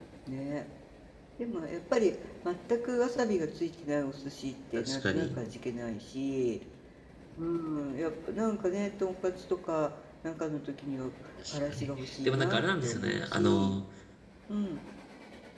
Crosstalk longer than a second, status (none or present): present